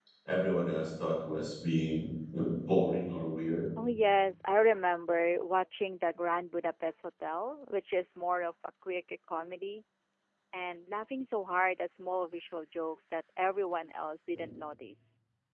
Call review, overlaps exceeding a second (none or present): none